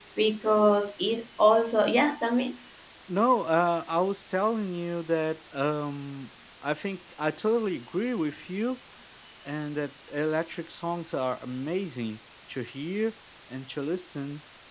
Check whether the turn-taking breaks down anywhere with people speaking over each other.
No

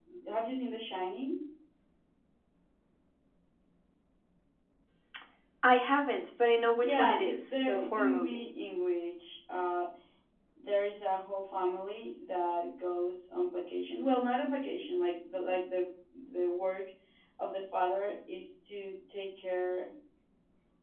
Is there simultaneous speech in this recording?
Yes, from 6.8 s

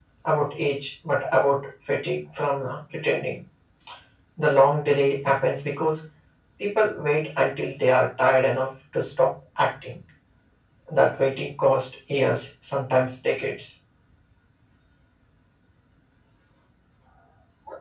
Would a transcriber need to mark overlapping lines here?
No

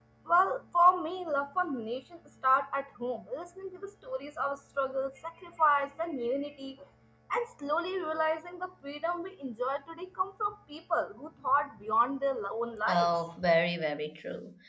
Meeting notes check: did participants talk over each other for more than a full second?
No

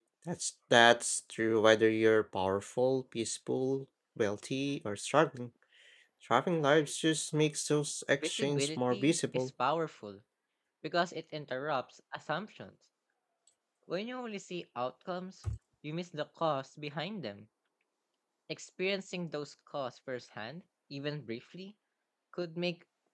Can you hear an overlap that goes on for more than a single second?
Yes, from 8.2 s

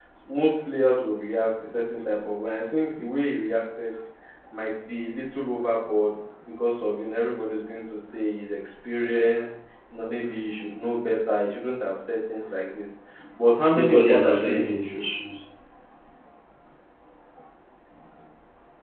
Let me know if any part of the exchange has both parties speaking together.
Yes, from 13.7 s

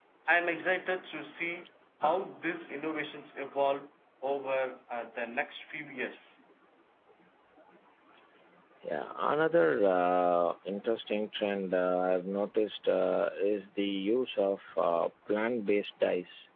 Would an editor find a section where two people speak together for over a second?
No

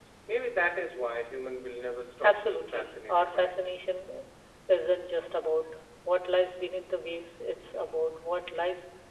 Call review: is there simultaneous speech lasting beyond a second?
Yes, from 2.2 s

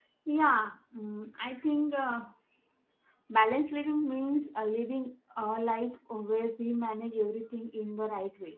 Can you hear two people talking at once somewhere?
No

